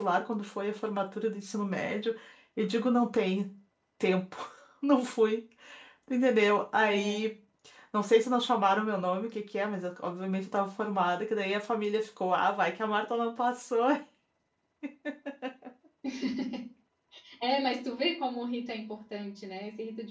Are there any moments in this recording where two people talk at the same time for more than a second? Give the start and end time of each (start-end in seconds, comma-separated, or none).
none